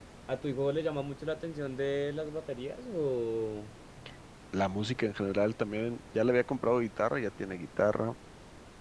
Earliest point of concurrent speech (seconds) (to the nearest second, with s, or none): none